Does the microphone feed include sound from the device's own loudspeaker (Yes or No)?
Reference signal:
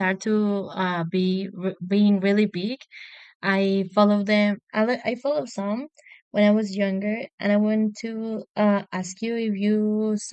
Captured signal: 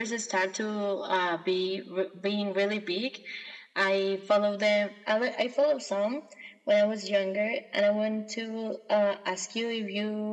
Yes